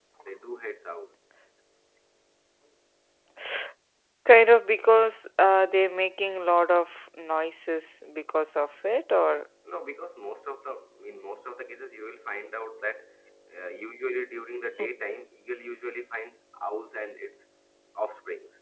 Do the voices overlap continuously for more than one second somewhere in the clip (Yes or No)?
No